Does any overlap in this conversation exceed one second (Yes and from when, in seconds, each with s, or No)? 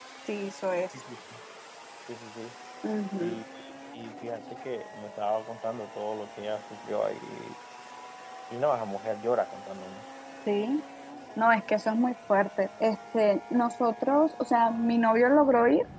No